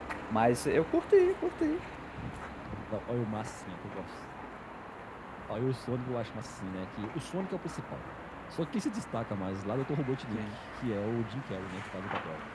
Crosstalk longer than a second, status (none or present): none